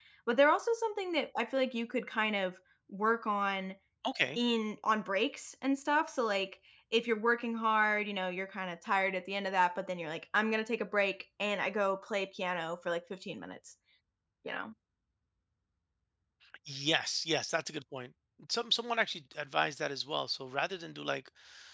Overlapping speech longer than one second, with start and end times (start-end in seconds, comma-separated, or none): none